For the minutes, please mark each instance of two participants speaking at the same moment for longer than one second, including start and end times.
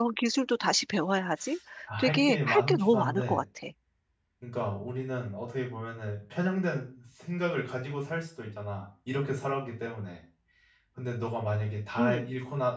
2.0-3.4

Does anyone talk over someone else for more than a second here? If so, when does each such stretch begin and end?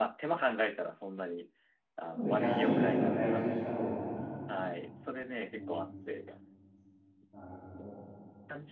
2.1-3.5

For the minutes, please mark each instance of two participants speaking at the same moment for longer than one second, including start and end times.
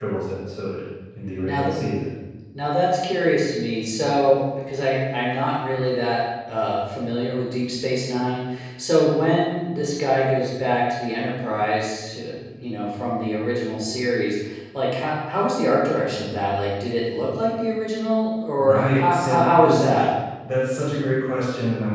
18.6-20.1

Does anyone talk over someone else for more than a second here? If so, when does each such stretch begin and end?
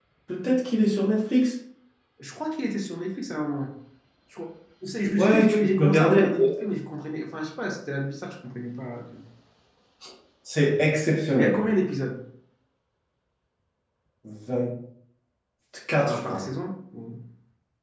5.2-6.6

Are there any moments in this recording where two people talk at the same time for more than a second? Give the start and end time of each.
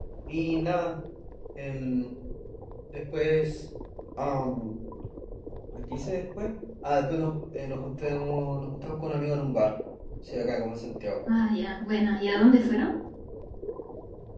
none

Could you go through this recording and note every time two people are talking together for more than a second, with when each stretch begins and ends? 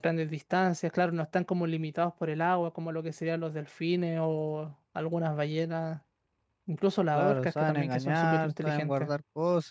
7.2-9.1

